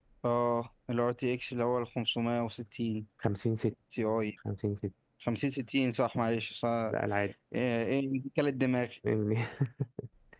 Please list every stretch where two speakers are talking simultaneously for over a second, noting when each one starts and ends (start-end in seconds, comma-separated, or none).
none